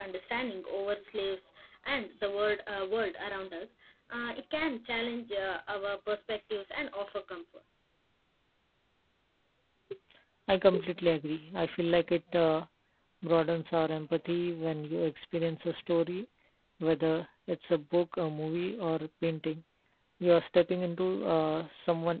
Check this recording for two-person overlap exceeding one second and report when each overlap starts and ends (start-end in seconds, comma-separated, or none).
none